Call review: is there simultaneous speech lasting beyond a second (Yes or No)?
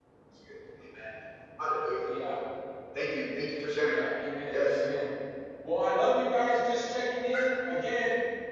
No